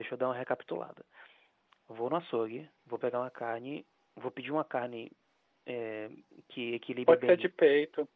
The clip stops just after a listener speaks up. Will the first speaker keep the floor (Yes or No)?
No